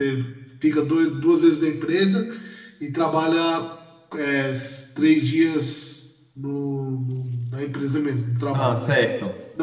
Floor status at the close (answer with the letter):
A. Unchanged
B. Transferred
A